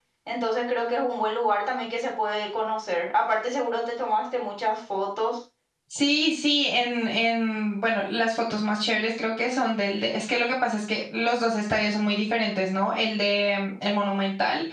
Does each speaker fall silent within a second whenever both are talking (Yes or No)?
Yes